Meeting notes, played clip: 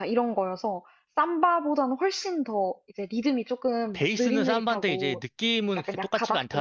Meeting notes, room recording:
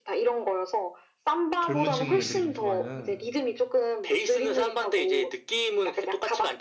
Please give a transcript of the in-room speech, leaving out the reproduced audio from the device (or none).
젊은 층 애들이 좀 좋아하는.